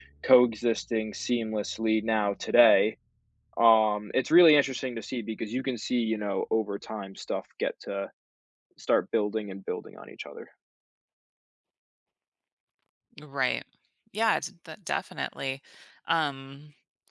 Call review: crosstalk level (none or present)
none